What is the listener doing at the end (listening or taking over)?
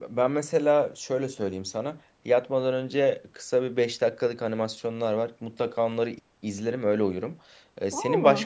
listening